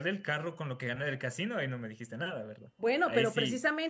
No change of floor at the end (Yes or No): No